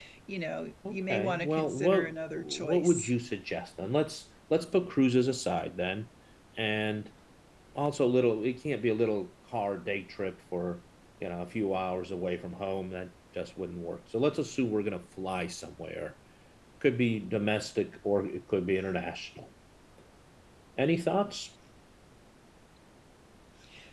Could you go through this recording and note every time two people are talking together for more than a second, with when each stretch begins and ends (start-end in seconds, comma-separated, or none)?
0.9-3.1